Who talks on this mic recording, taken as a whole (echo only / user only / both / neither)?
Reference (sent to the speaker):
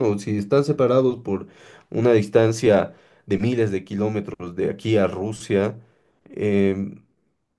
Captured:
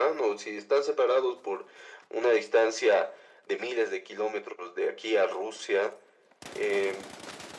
echo only